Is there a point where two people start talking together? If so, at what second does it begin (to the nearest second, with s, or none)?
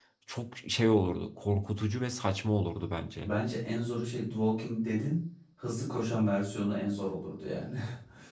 none